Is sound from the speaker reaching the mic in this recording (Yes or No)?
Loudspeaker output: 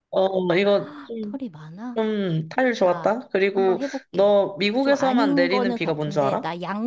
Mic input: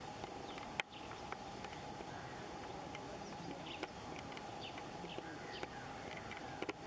No